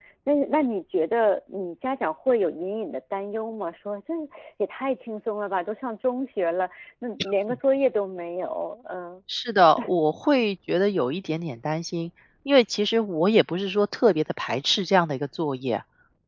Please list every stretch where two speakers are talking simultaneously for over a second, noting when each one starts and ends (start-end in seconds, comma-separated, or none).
none